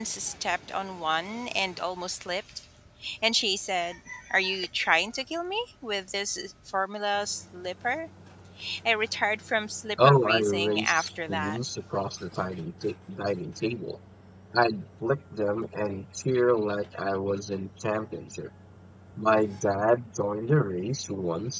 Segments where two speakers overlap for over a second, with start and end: 10.0-11.6

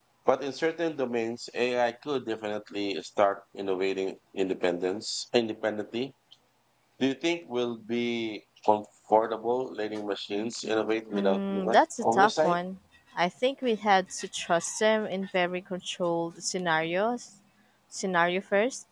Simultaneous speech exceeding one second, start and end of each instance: 11.2-12.6

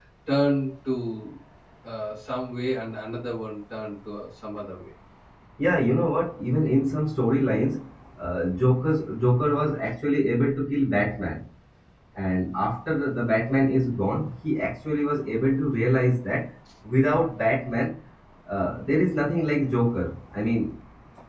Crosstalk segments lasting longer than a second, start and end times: none

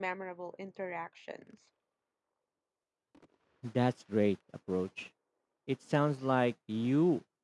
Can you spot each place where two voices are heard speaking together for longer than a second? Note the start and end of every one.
none

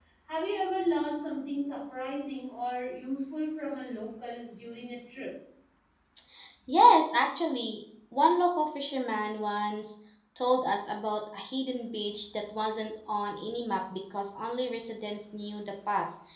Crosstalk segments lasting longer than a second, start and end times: none

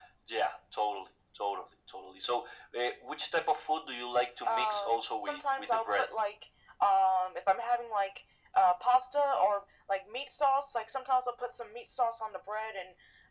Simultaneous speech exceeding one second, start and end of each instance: 4.5-6.1

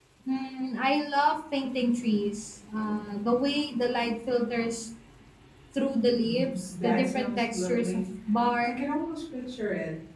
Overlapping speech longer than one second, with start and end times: 6.2-8.0

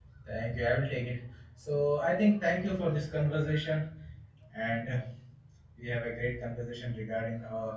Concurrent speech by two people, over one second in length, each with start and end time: none

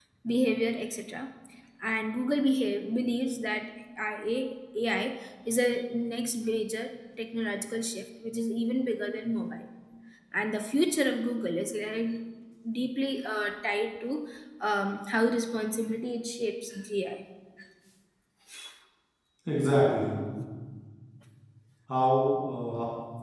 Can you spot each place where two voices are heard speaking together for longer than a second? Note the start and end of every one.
none

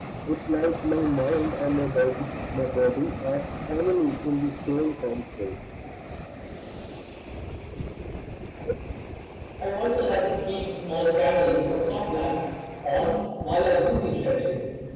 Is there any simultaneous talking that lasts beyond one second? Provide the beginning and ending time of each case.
none

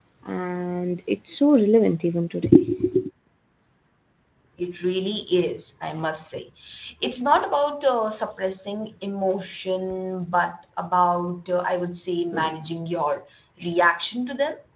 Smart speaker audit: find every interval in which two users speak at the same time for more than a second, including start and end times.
none

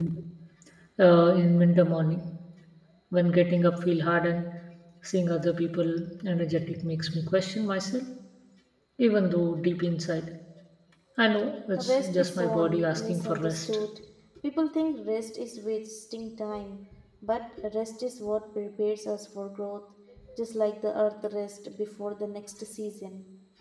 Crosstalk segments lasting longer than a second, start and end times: 11.8-13.7

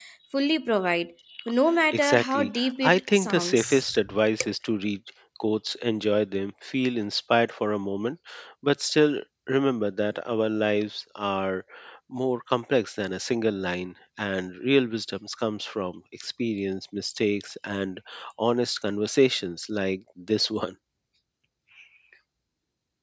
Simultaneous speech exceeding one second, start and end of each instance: 1.9-3.9

